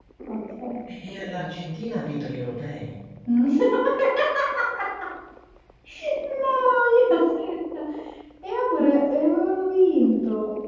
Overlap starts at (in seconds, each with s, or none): none